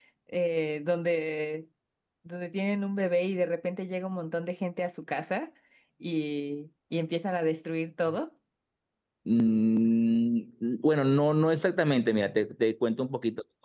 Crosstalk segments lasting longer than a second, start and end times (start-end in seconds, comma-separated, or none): none